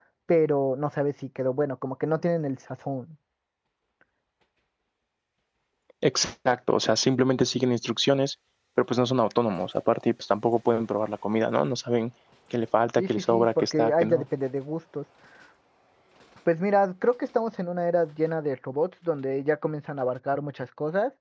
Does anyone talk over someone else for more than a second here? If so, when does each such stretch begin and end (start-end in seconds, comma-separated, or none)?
13.0-14.2